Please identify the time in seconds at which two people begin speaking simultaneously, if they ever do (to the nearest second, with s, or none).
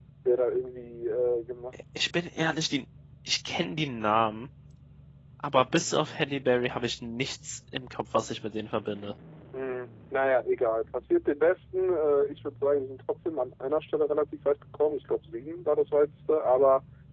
none